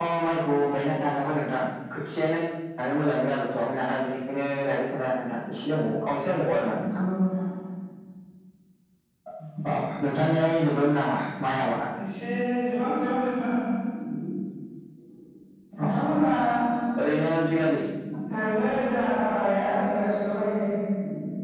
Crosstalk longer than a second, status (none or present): none